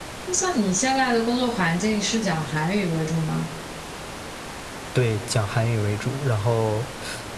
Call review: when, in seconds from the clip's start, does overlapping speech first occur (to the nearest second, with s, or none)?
none